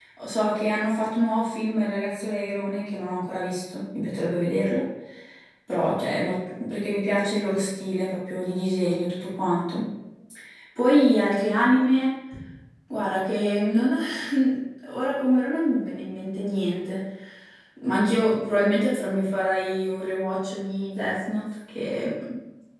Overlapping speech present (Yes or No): No